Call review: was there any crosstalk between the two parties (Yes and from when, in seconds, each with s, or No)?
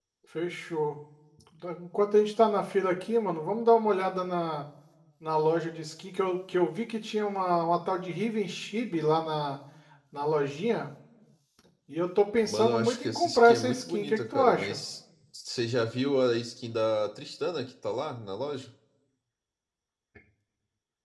Yes, from 12.5 s